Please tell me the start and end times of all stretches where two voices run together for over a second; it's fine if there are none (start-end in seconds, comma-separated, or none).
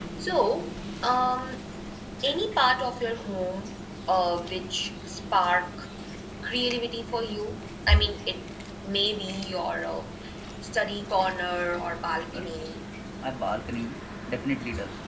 none